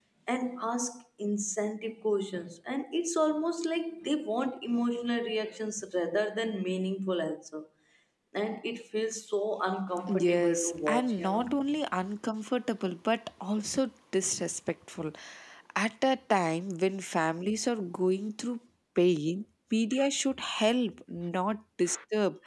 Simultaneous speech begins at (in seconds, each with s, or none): 10.1 s